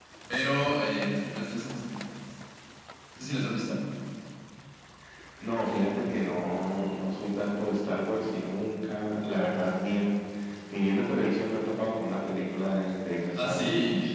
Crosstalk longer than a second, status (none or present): none